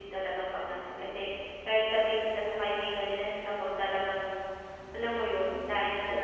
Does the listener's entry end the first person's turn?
Yes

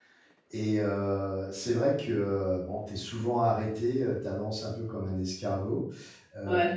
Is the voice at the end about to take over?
No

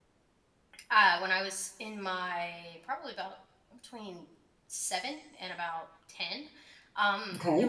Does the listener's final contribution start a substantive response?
No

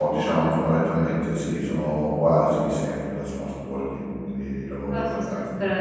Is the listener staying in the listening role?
No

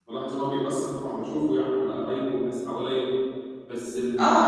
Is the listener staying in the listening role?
No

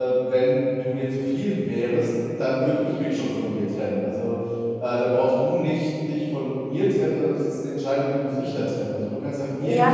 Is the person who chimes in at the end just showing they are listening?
No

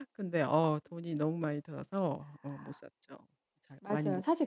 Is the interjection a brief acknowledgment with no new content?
No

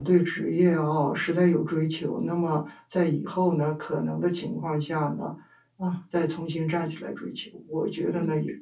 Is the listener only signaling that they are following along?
Yes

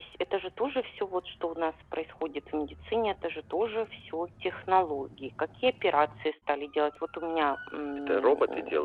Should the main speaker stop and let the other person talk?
Yes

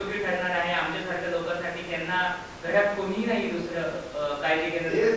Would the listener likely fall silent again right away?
No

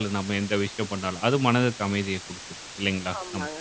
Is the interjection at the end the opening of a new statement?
Yes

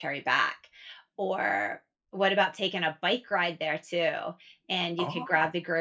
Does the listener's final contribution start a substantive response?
No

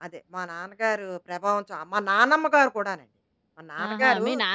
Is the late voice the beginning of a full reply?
Yes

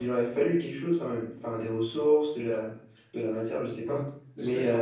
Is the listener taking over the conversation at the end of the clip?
Yes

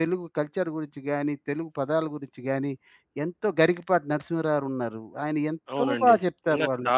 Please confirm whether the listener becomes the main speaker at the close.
Yes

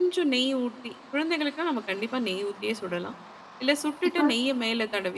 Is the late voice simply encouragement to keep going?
Yes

